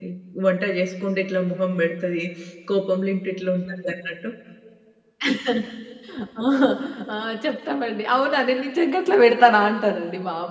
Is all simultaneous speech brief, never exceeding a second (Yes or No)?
Yes